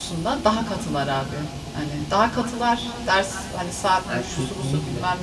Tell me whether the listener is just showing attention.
Yes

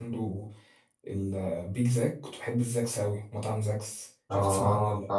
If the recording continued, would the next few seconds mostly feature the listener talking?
Yes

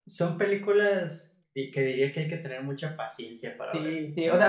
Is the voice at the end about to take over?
Yes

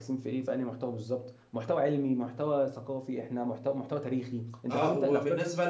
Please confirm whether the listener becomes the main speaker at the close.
Yes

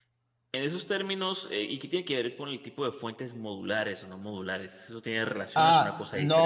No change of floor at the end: No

